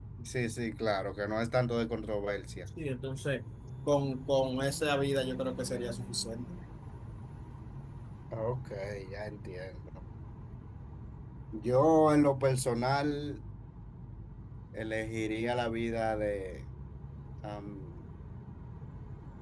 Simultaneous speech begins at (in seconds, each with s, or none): none